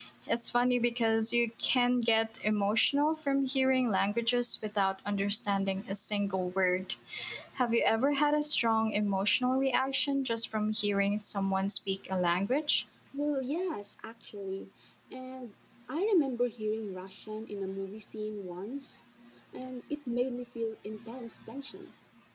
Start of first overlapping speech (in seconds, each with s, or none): none